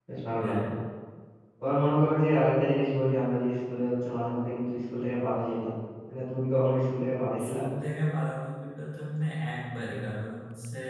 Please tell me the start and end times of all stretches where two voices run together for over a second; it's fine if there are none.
none

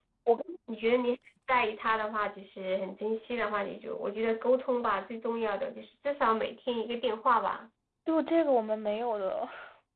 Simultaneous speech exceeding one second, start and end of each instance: none

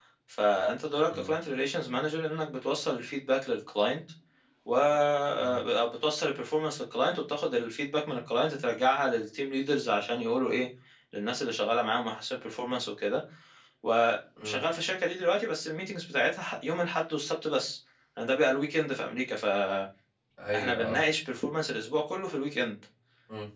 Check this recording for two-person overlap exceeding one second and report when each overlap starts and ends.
none

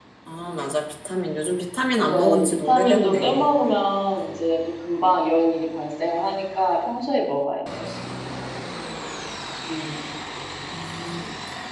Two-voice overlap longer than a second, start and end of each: 2.0-3.5

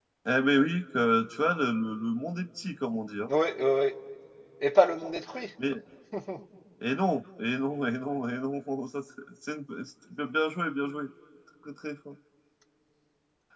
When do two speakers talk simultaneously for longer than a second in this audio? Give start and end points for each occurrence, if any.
none

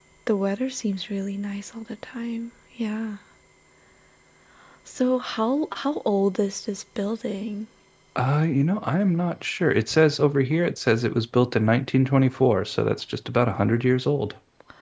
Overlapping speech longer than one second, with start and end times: none

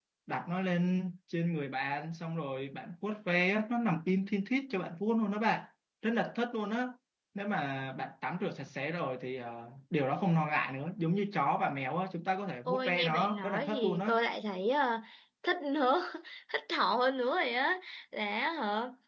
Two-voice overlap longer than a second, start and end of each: 12.7-14.1

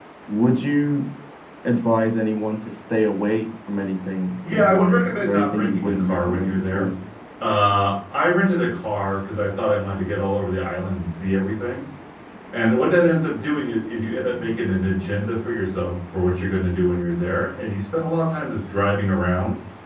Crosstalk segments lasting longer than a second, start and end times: 4.5-6.9

